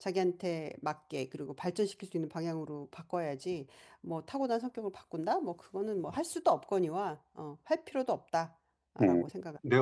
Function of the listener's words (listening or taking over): taking over